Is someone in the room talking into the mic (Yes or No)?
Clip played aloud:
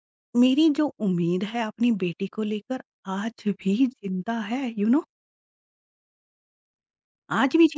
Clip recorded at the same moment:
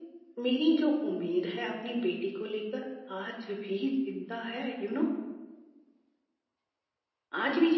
No